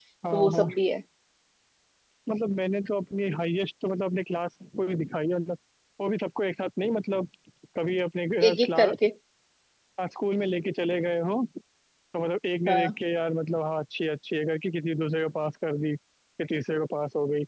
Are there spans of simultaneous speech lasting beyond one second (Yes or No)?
No